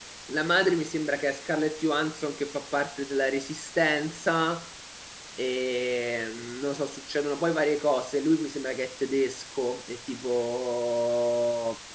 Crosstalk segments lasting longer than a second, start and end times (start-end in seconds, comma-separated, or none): none